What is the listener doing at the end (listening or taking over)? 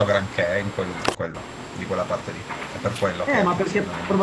taking over